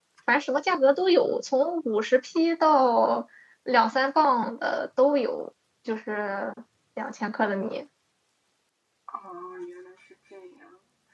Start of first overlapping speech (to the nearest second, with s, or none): none